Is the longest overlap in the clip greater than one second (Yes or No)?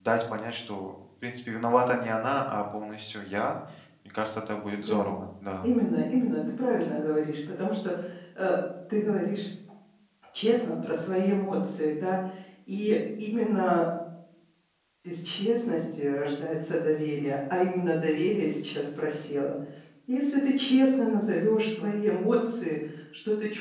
No